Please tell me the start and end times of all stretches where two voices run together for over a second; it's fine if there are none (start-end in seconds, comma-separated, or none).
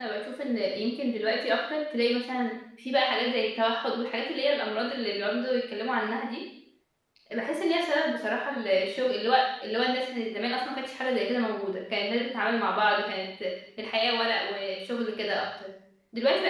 none